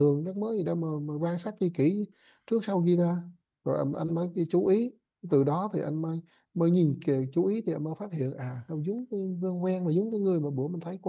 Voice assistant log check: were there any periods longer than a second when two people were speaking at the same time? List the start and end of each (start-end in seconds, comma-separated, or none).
none